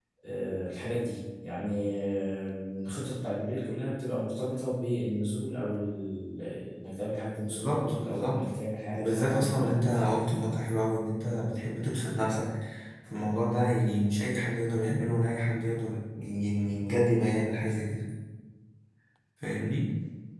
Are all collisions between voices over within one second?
No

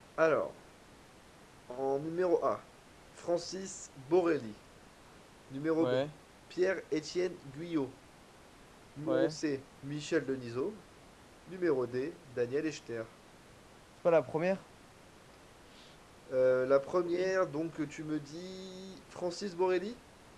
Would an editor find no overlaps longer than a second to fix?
Yes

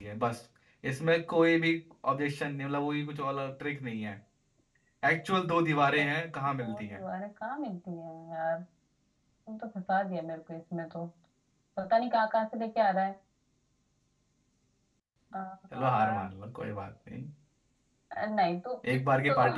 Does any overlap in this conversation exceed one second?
No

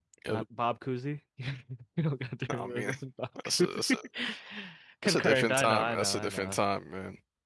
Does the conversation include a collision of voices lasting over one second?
Yes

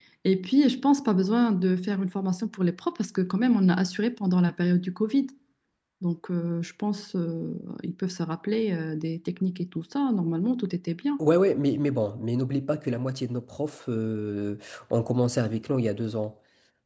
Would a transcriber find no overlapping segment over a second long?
Yes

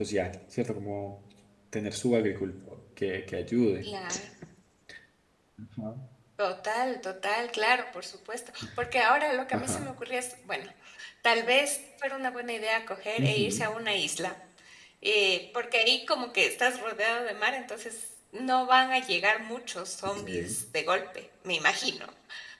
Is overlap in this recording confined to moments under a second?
Yes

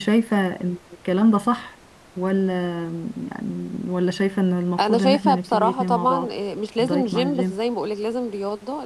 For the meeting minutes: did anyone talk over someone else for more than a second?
Yes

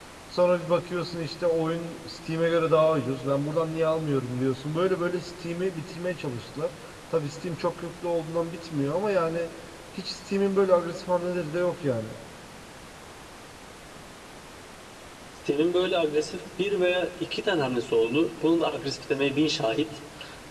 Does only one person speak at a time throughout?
Yes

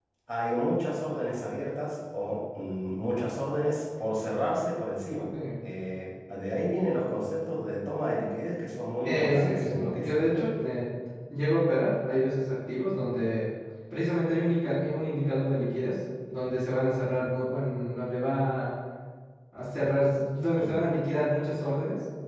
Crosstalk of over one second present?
Yes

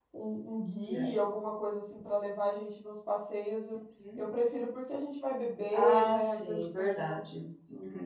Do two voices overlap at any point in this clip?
Yes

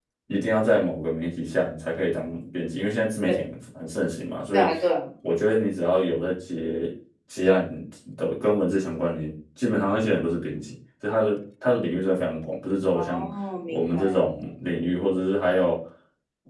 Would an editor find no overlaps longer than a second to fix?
Yes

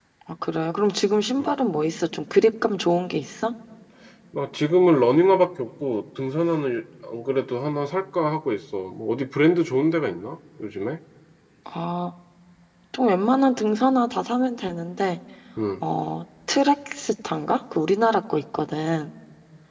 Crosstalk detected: No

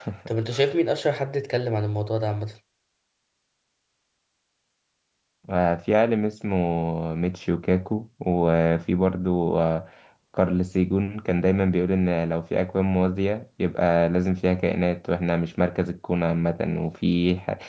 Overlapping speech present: No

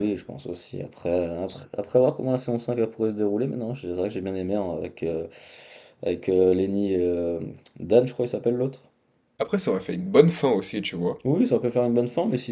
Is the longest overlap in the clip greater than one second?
No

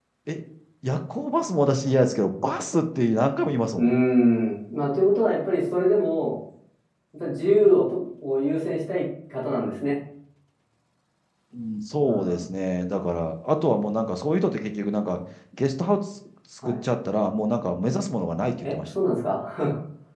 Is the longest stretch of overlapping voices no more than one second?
Yes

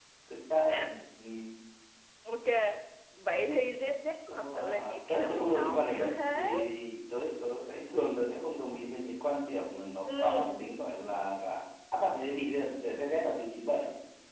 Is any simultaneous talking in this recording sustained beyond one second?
Yes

